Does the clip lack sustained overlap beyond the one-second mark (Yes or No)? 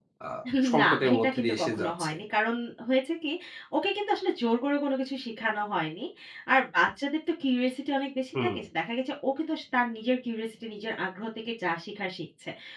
No